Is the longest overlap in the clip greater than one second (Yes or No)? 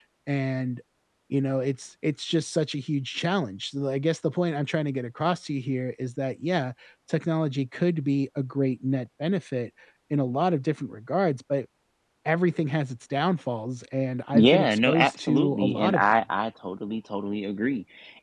Yes